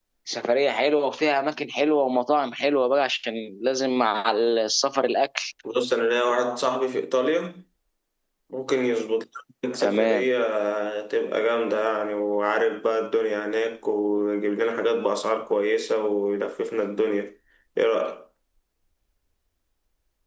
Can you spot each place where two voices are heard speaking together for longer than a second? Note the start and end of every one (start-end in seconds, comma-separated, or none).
none